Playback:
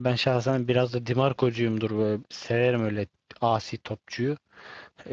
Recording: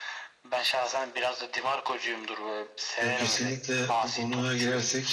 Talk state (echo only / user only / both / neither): both